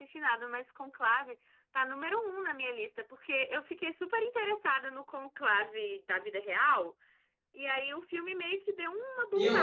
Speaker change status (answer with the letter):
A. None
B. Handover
B